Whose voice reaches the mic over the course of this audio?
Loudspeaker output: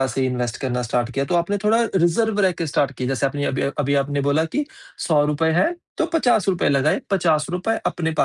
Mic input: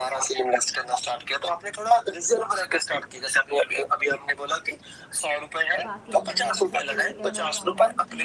both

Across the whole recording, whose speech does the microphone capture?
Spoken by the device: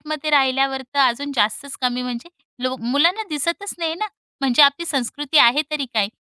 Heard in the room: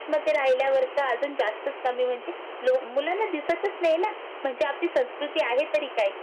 echo only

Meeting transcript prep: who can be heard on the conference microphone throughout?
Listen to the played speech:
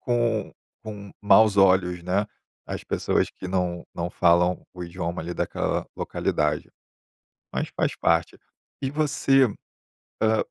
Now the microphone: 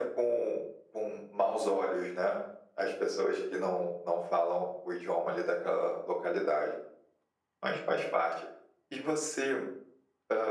echo only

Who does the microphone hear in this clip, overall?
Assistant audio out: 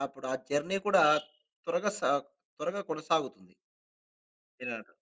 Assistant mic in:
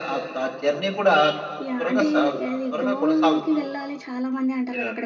both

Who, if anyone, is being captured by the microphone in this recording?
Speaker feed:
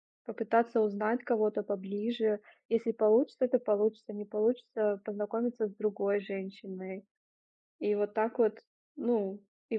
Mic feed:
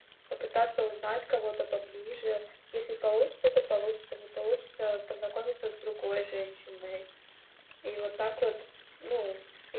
echo only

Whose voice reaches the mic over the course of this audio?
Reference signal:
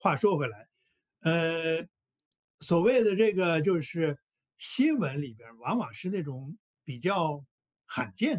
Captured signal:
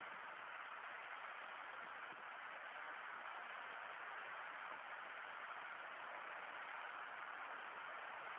neither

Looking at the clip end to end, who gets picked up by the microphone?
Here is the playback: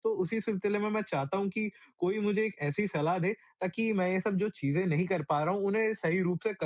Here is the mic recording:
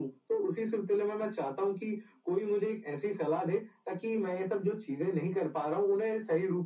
echo only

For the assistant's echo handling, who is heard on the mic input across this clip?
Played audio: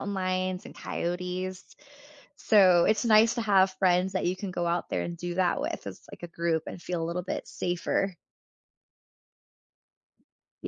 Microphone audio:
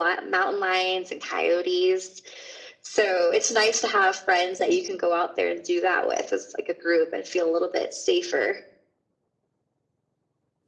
echo only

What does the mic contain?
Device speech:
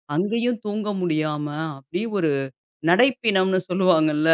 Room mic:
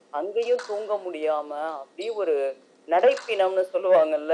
echo only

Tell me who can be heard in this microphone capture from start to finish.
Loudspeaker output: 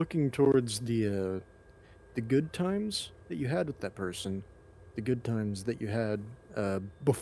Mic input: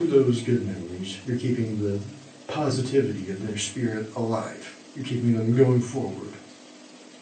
user only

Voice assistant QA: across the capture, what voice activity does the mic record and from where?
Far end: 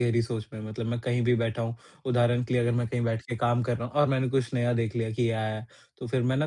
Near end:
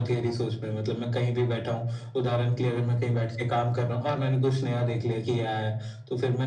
echo only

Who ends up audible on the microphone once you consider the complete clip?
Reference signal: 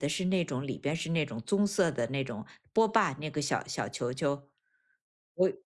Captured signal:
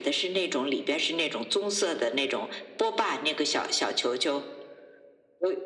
echo only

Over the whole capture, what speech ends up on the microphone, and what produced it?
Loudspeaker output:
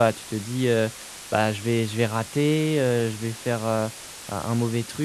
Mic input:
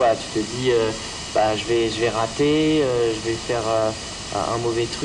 echo only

